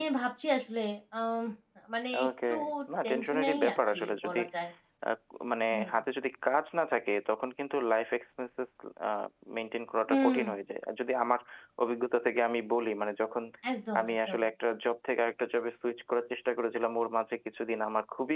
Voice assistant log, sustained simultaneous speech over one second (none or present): present